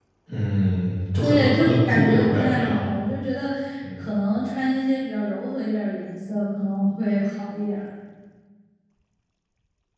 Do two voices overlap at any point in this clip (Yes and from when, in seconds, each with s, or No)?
Yes, from 1.2 s